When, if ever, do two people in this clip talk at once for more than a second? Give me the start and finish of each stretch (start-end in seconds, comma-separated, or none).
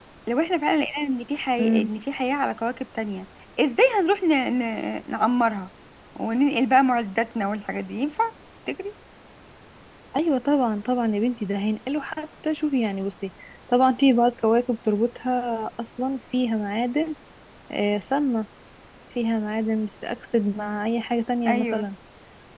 none